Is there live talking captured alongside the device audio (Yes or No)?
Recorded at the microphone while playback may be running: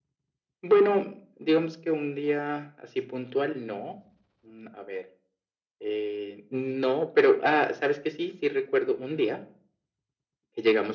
No